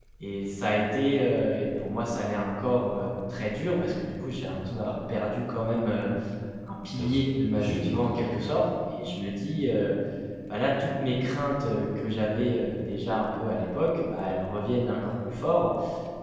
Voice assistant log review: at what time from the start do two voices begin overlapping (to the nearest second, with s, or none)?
7 s